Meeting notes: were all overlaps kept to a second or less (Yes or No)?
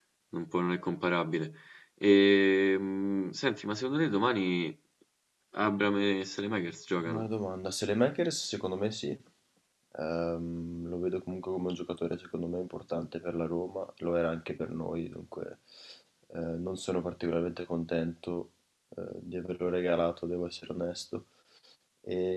Yes